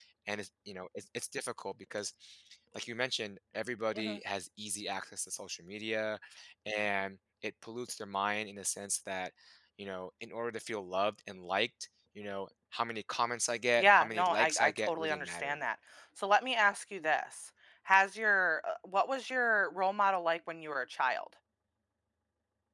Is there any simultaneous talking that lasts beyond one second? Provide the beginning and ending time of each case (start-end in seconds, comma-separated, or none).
13.8-15.6